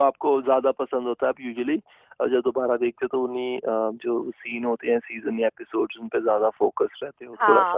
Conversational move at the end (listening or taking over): taking over